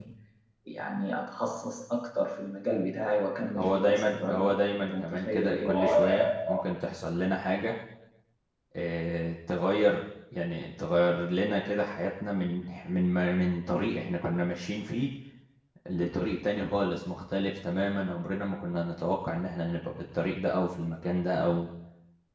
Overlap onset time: 4 s

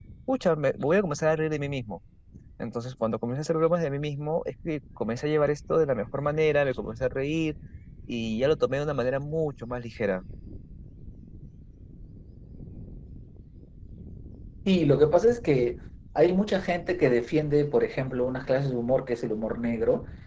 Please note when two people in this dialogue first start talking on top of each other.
none

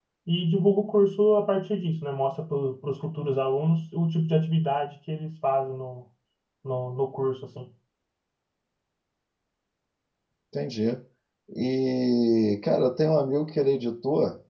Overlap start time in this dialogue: none

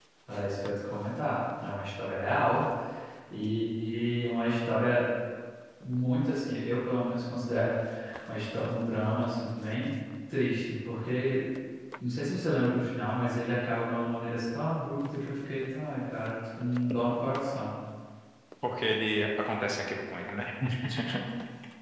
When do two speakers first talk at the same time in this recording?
none

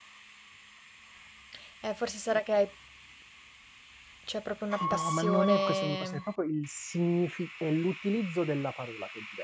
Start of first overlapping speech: 5 s

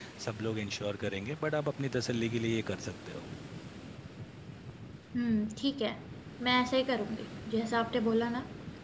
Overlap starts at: none

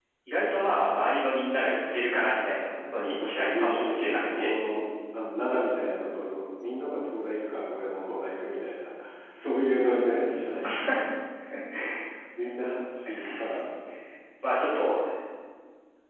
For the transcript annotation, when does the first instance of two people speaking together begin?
3 s

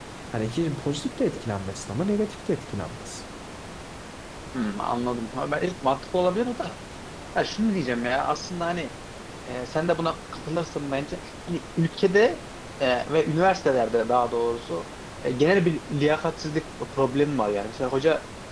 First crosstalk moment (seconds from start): none

